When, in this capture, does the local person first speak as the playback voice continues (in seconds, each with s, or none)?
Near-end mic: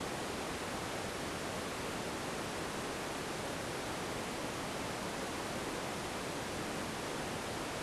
none